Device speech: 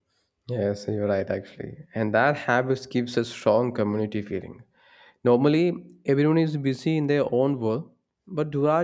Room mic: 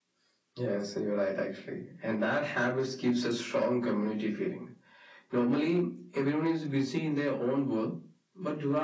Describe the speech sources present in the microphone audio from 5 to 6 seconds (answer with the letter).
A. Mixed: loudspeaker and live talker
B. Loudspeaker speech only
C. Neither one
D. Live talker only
B